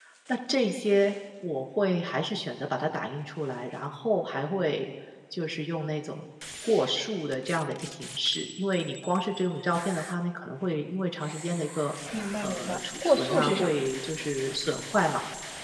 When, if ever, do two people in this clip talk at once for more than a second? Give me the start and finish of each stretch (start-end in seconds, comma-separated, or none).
12.4-13.8